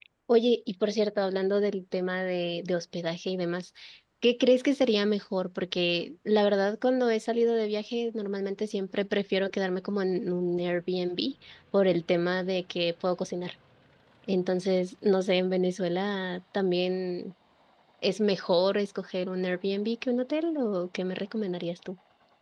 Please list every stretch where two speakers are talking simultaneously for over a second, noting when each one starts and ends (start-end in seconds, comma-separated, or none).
none